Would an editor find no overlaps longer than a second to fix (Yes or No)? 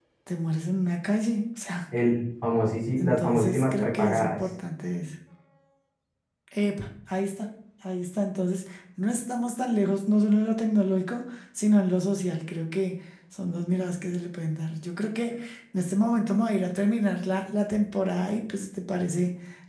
No